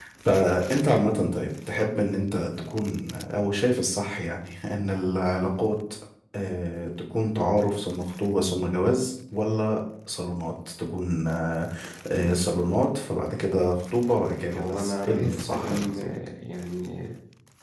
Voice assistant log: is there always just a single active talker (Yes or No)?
No